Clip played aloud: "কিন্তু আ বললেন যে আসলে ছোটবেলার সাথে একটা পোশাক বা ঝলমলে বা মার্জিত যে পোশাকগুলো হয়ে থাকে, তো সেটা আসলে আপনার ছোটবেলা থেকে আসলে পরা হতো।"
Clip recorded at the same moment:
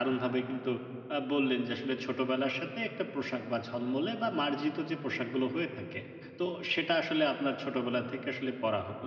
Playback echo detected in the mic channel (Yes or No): Yes